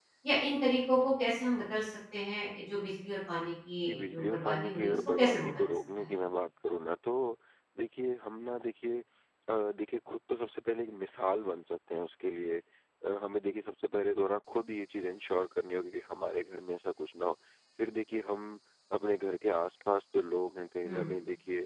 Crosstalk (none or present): present